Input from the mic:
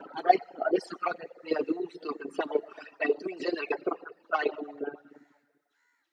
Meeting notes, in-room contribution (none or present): none